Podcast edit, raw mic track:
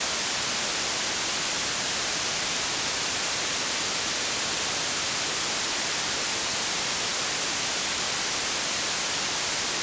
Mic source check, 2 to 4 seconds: neither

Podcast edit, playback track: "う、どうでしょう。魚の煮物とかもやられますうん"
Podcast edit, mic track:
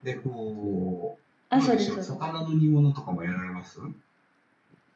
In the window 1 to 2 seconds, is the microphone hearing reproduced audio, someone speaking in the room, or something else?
both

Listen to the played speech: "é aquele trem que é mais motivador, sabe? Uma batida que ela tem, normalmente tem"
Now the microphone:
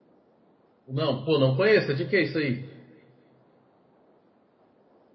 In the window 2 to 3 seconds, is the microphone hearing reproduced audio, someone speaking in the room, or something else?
user only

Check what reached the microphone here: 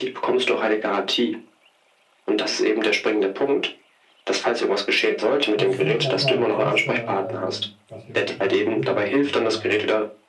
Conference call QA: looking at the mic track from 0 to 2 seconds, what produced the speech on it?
echo only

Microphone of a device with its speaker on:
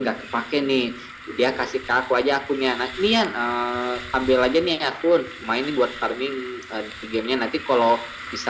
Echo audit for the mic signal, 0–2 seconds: echo only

